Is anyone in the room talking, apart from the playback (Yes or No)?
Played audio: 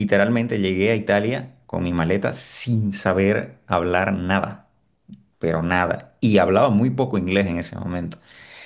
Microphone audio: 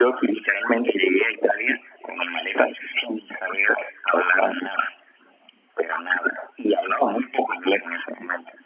No